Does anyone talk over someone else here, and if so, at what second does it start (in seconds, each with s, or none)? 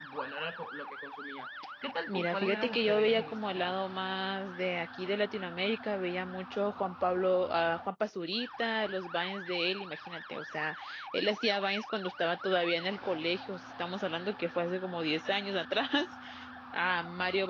2.1 s